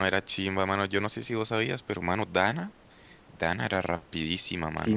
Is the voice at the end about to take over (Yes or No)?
Yes